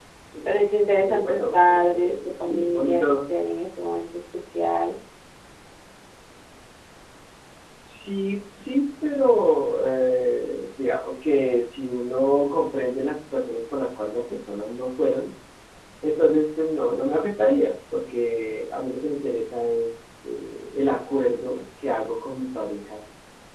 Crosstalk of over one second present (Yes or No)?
Yes